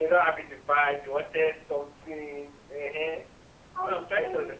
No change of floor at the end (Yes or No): No